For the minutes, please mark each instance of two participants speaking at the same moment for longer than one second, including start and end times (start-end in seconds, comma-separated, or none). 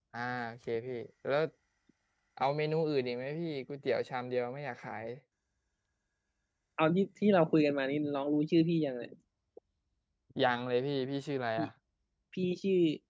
none